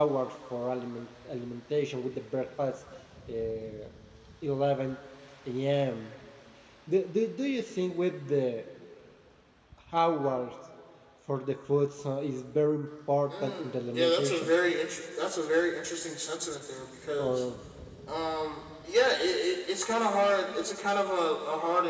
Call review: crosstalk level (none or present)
present